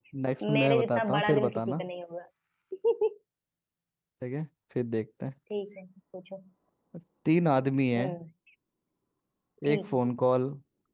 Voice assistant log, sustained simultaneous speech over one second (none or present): present